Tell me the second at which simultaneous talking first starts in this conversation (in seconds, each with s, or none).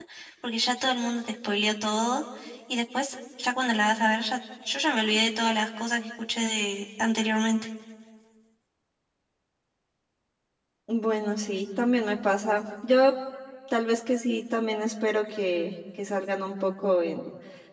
none